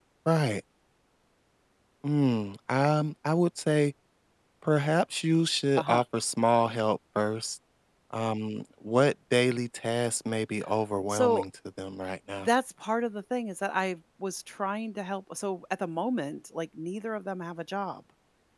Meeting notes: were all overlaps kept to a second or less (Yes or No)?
Yes